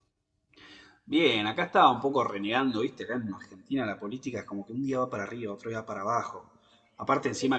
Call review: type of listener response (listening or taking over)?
listening